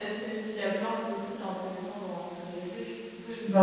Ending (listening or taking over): listening